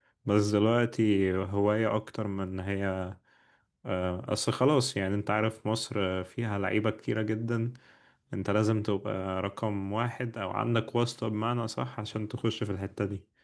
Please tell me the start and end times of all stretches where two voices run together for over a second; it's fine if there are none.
none

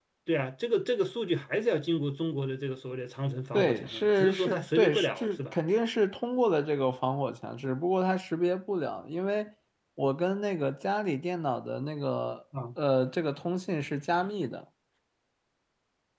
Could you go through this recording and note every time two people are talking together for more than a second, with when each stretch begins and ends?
3.5-5.6

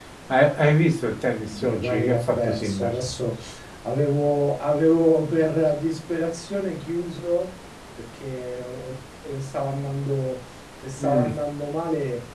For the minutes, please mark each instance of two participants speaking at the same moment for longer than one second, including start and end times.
1.5-3.0

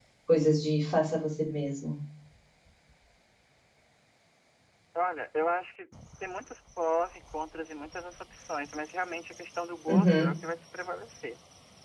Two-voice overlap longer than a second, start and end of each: none

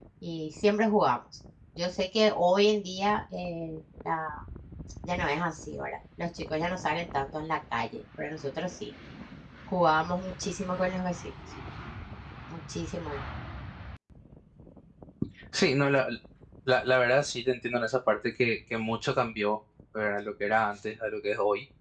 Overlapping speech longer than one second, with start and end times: none

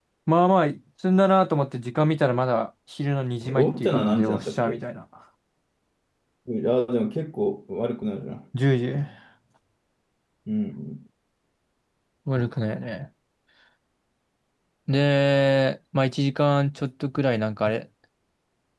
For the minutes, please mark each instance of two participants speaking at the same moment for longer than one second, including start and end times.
3.4-4.8

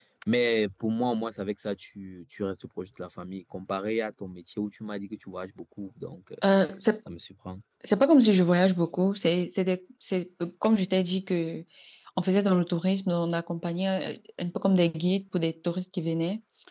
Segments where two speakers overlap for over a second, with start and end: none

